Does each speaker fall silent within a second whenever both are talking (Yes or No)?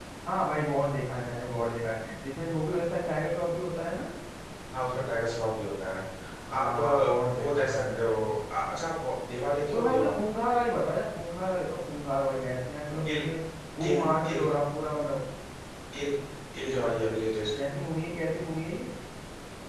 No